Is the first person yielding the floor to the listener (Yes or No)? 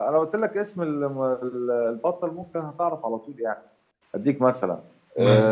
No